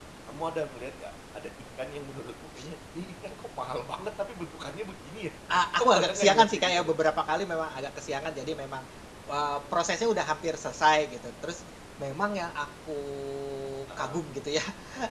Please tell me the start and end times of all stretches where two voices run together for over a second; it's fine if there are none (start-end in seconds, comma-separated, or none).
5.7-7.0